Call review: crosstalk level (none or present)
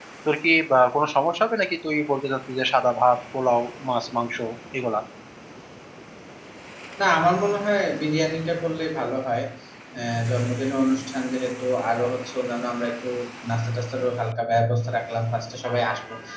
none